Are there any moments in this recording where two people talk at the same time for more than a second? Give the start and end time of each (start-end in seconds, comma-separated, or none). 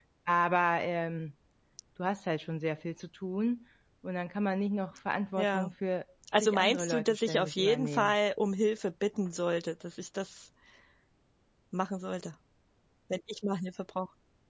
6.4-8.2